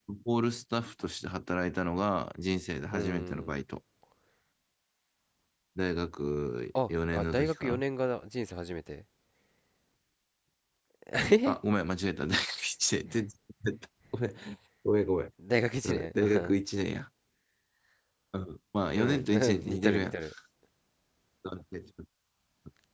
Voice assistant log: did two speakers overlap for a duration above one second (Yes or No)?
Yes